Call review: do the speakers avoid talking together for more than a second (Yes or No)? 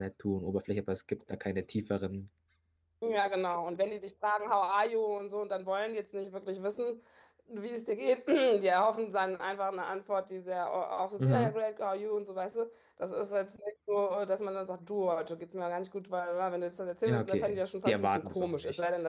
No